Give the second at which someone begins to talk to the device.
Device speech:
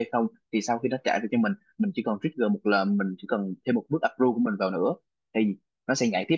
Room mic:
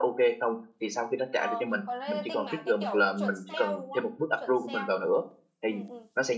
1 s

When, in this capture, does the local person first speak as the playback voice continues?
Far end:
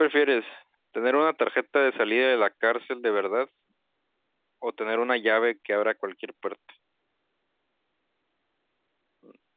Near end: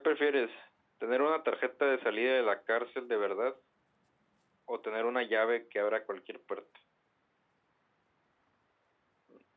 none

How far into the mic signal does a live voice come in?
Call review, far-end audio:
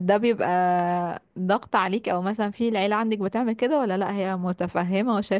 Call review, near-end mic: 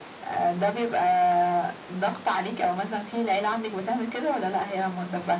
none

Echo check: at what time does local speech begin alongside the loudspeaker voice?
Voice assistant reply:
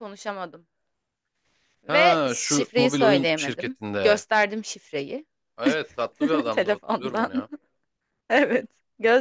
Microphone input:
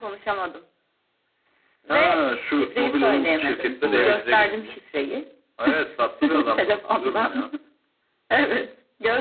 4 s

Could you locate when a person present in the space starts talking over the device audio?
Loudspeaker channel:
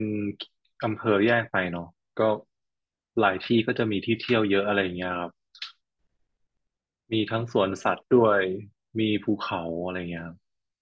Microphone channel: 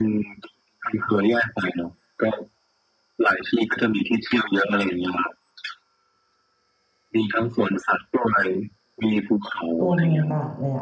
10 s

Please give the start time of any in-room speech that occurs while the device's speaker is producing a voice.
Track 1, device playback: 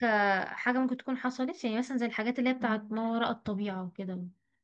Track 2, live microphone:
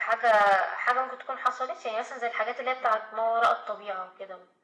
none

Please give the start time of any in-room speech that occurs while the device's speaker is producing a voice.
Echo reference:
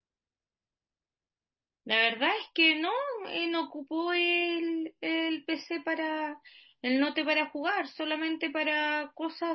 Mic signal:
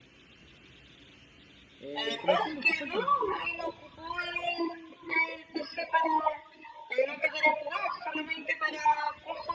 2 s

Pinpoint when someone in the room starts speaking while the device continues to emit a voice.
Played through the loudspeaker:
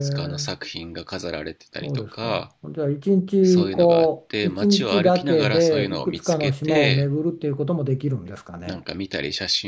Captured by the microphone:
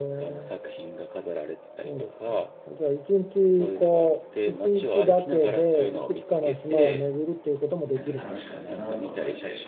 8 s

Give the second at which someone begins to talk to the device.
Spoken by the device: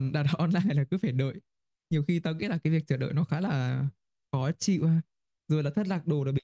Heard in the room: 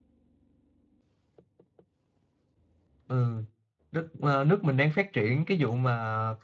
3 s

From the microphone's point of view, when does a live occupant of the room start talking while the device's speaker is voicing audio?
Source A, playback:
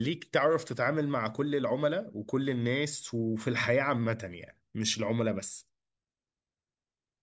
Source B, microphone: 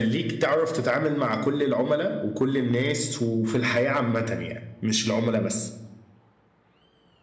none

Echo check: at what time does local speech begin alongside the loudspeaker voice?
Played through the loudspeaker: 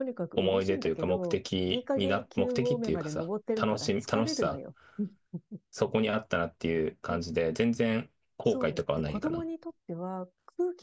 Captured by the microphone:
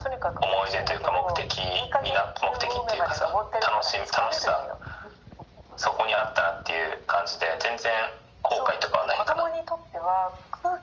none

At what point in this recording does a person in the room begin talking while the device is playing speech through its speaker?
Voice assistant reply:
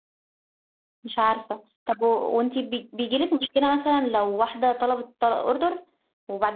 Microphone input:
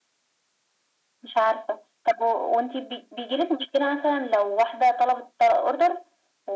none

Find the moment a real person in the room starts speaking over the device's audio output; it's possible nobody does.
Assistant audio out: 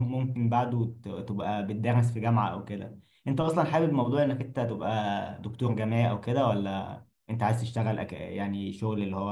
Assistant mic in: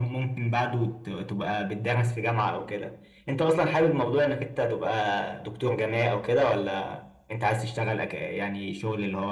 none

